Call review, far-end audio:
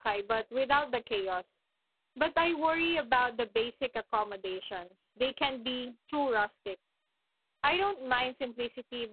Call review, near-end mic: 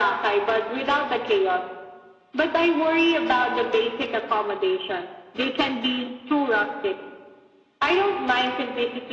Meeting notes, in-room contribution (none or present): none